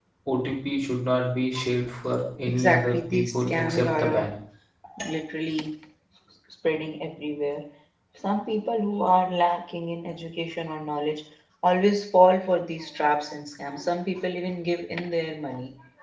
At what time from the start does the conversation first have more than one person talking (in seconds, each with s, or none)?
2.5 s